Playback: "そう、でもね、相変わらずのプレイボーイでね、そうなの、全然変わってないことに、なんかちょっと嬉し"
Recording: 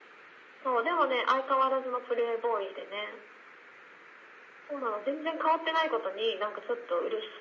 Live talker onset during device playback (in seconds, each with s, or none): none